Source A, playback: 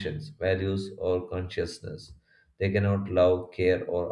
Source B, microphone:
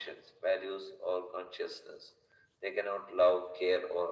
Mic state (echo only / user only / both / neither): echo only